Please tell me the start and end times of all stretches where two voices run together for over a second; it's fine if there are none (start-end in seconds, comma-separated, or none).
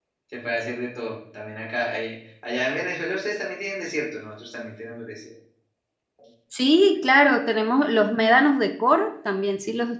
none